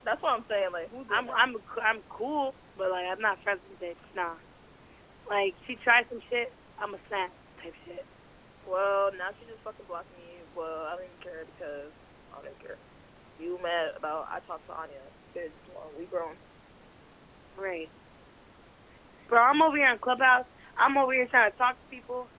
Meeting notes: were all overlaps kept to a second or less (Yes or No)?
Yes